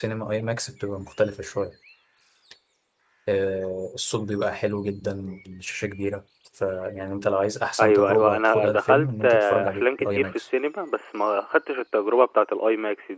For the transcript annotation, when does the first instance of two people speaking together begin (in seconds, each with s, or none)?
7.8 s